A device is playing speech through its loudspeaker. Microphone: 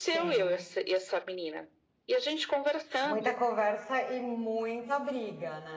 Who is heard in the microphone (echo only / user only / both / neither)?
both